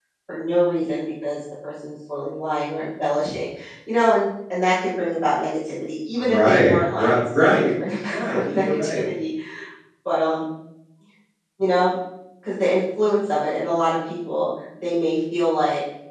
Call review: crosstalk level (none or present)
present